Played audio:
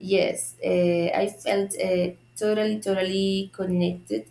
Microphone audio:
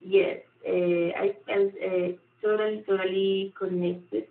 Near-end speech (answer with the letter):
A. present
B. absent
B